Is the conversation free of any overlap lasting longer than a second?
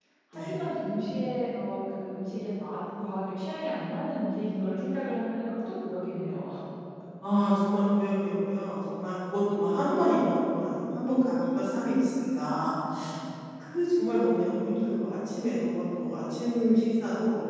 Yes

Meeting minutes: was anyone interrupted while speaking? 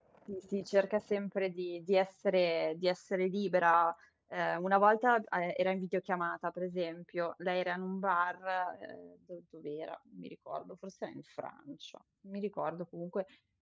No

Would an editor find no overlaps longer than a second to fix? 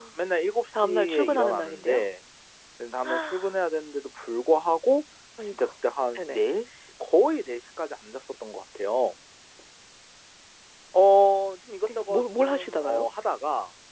No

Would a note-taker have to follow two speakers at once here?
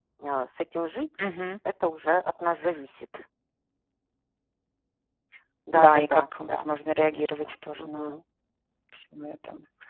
Yes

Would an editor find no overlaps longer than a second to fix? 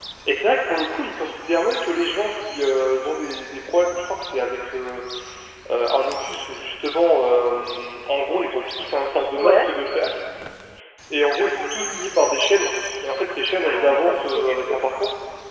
No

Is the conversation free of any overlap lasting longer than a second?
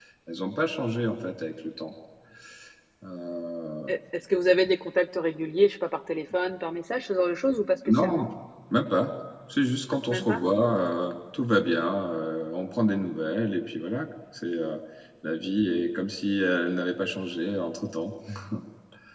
Yes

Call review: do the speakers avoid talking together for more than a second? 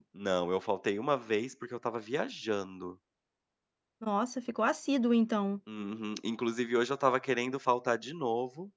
Yes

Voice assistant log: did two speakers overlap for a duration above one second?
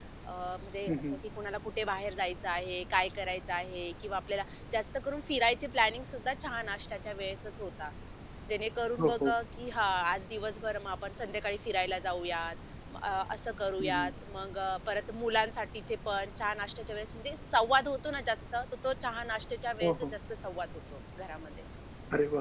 No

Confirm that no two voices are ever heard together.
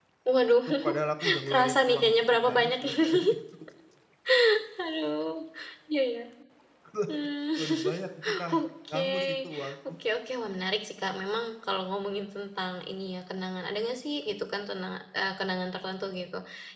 No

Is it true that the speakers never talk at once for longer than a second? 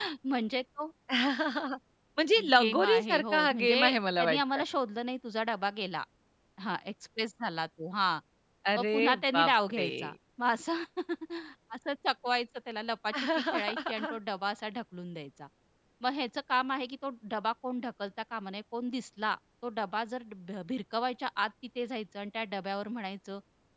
No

